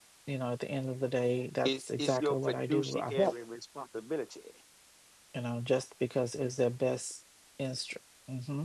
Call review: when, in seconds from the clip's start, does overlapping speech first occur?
1.6 s

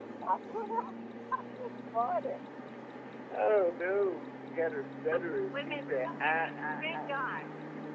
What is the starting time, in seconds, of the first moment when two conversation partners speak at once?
5.1 s

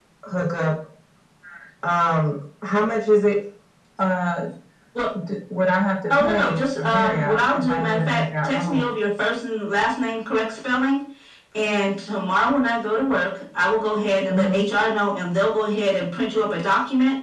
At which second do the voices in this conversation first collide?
6.1 s

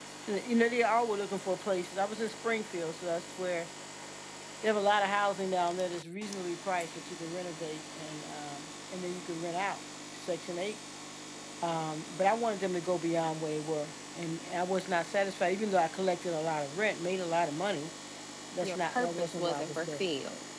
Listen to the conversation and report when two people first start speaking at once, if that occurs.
18.6 s

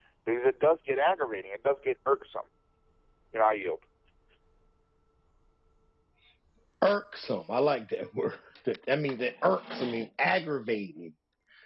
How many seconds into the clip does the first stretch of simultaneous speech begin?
none

